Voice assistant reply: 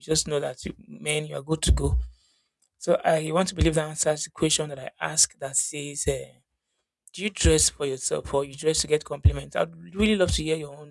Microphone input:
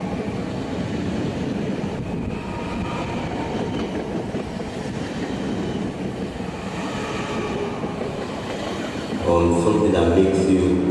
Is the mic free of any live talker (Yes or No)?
No